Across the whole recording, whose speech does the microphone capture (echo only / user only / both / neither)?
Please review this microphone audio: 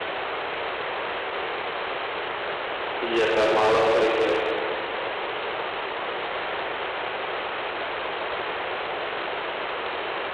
user only